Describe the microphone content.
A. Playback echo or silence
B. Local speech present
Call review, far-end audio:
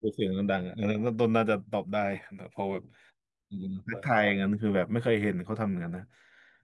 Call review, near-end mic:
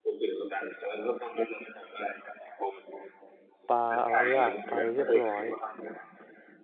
B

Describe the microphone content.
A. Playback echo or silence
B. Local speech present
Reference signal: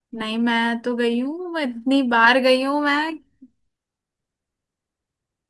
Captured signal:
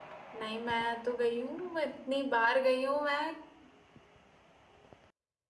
A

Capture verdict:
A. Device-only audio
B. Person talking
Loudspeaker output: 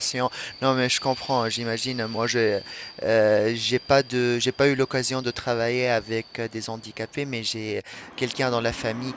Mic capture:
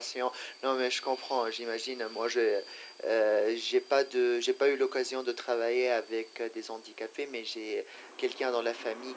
A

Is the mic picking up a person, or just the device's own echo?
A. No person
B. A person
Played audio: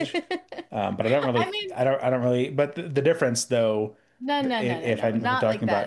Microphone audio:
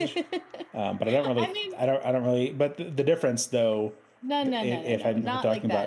A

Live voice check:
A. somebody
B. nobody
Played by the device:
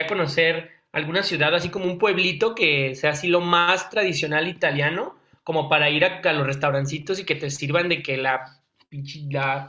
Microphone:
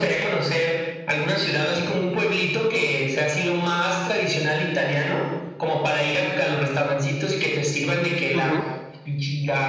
A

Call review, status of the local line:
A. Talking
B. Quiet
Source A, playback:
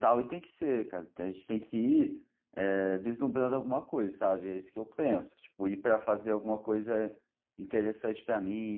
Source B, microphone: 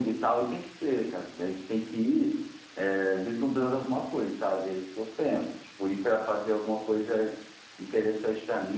B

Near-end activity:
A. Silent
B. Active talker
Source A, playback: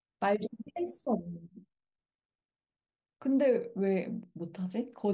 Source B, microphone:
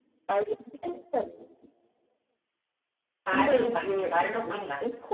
B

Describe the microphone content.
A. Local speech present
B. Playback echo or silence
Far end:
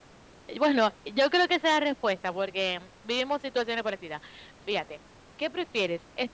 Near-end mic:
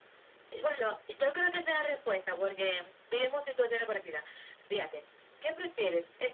B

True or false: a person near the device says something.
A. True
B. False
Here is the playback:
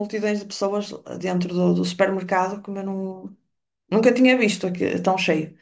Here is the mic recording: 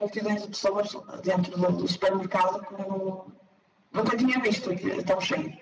B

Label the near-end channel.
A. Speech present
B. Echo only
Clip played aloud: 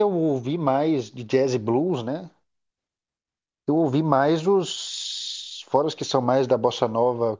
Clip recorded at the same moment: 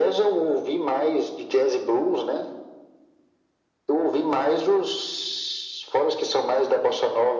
B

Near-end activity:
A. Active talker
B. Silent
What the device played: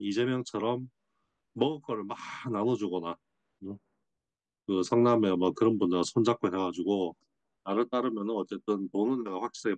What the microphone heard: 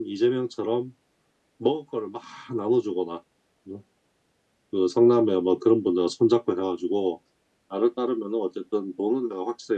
B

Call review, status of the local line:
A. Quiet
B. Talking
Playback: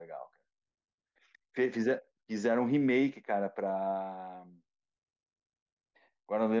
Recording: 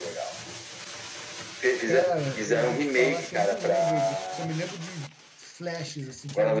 B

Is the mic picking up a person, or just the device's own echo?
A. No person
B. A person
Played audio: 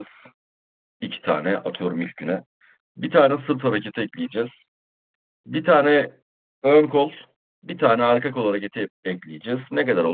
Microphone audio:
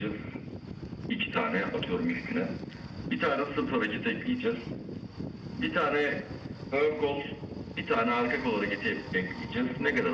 A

